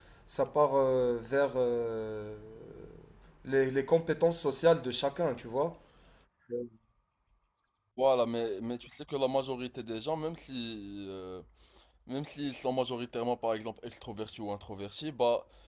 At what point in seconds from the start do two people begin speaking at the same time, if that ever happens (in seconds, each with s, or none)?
none